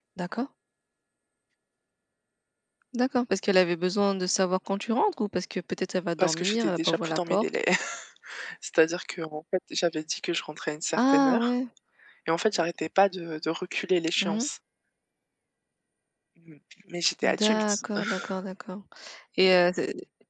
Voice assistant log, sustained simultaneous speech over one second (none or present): present